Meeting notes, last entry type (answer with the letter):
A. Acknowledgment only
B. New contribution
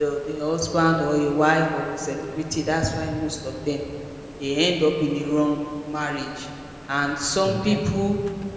A